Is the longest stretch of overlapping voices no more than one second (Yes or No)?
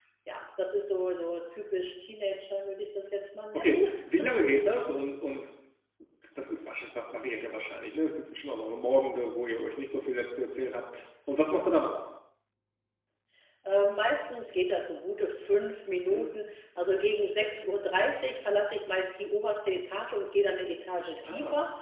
Yes